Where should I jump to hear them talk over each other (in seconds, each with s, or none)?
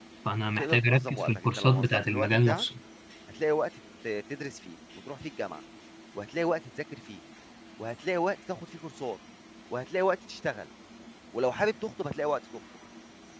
0.6 s